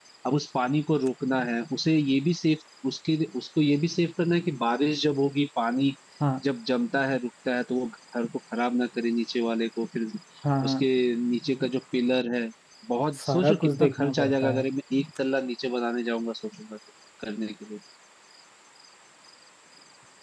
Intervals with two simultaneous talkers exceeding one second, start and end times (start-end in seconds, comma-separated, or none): 13.2-14.6